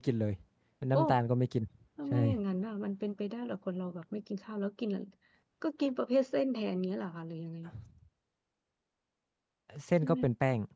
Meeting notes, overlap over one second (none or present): none